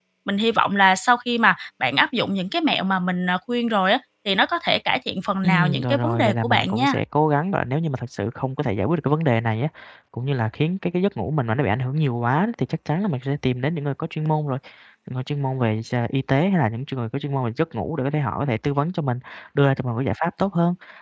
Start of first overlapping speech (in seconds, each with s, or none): 5.4 s